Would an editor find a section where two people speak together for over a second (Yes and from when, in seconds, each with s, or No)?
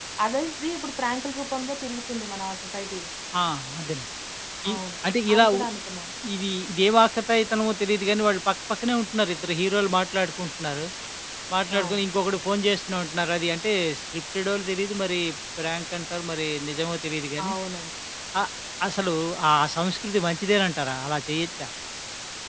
No